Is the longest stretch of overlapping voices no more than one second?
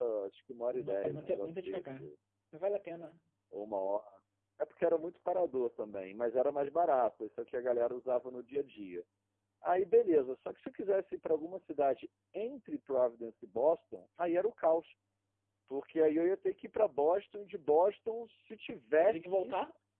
No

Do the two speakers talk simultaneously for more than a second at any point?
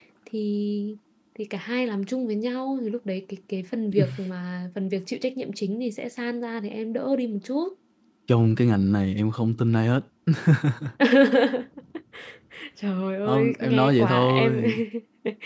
Yes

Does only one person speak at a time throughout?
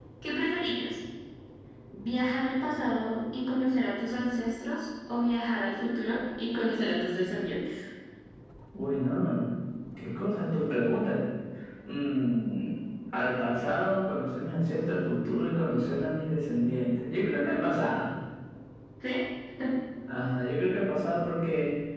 Yes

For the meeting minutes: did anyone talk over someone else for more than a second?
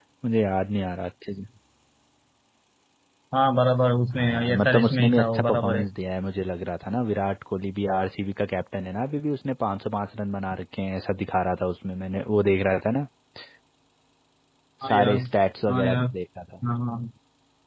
Yes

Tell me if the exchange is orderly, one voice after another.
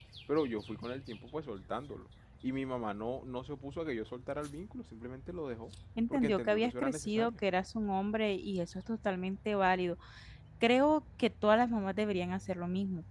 No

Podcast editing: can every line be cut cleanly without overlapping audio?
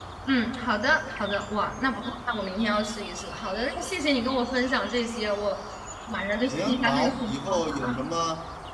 No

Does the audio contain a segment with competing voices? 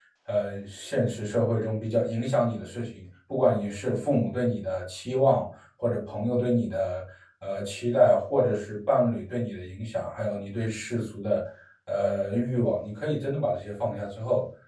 No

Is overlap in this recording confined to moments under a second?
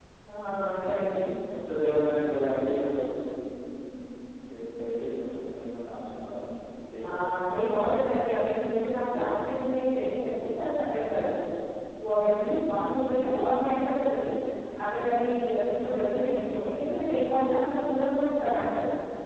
Yes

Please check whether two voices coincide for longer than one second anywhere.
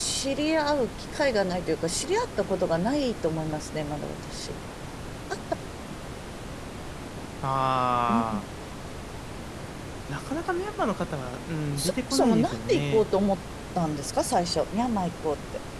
Yes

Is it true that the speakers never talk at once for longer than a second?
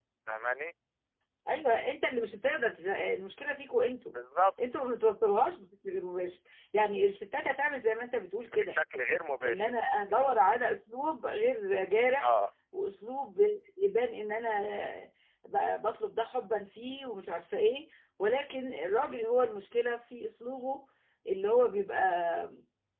Yes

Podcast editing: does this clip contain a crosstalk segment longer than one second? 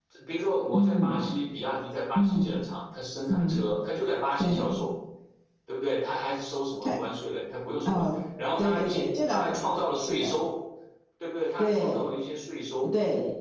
Yes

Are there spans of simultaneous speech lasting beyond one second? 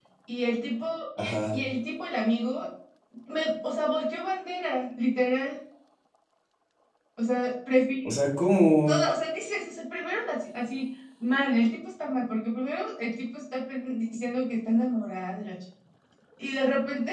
No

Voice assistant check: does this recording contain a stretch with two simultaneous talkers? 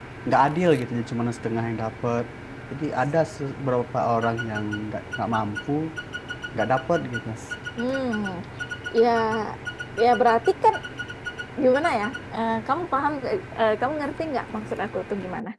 No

